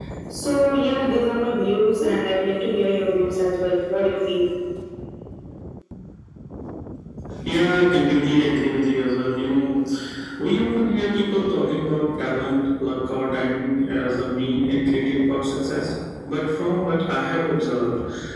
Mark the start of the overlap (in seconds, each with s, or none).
none